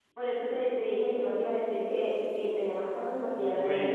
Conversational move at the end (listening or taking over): taking over